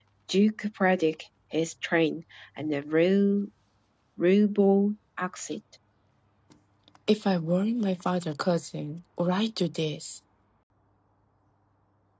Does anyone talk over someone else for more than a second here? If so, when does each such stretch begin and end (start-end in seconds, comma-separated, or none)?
none